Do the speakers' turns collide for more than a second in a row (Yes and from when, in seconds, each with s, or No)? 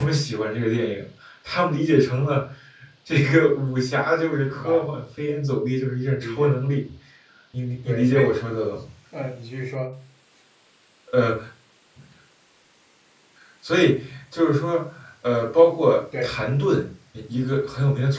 No